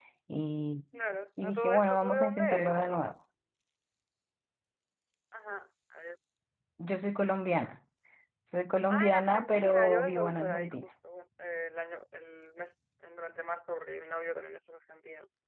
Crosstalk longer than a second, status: present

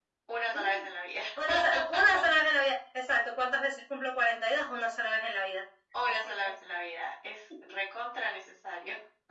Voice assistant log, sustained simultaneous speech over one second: none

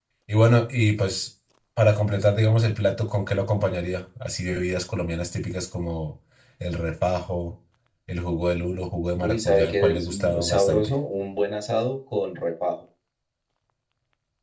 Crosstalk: present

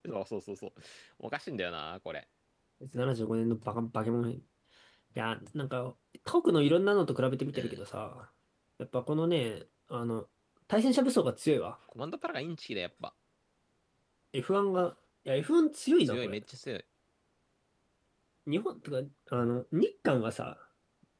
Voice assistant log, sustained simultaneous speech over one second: none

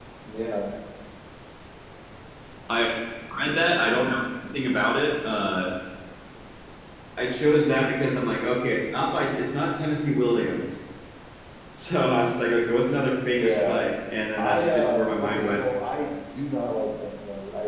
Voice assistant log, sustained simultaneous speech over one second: present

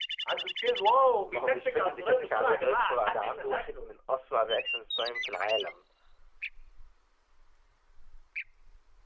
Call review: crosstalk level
present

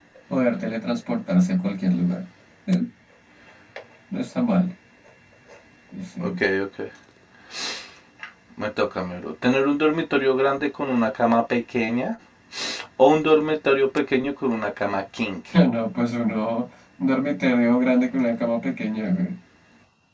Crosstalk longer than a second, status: none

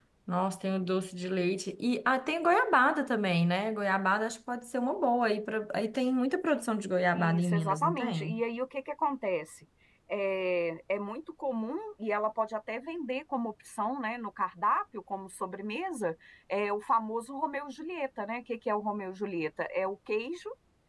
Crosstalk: present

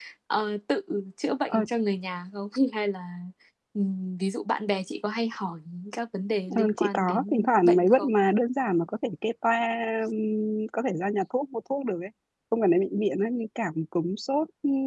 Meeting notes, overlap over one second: present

